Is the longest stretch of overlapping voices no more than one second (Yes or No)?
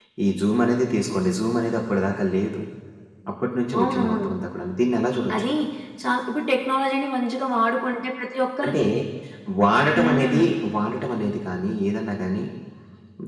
Yes